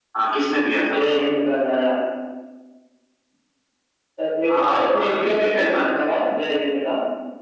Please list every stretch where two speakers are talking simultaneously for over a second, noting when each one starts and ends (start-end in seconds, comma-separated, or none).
4.5-5.7